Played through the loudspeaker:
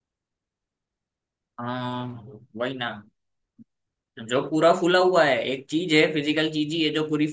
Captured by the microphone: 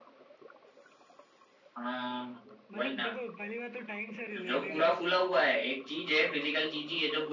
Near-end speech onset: 2.8 s

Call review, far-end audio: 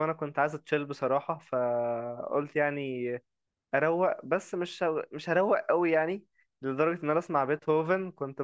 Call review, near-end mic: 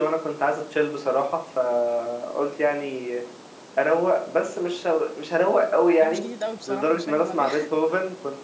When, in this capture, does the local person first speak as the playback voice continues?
6.0 s

